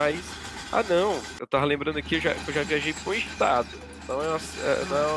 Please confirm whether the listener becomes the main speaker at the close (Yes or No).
No